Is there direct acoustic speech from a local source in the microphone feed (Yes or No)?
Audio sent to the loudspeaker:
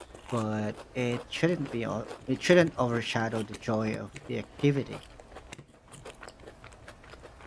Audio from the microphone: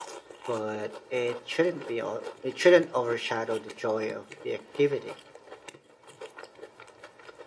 No